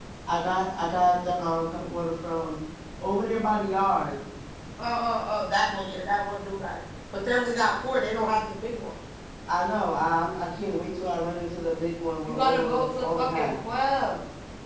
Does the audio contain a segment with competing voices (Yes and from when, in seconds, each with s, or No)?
Yes, from 12.2 s